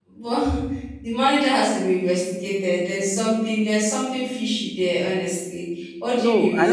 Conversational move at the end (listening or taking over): taking over